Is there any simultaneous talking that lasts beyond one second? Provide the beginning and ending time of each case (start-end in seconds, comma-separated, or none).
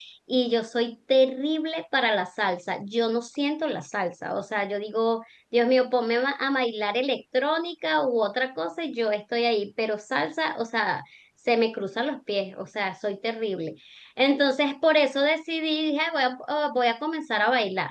none